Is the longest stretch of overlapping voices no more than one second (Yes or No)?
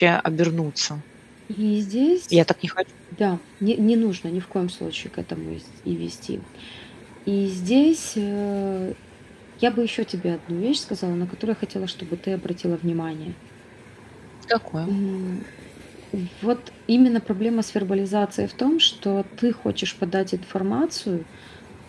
Yes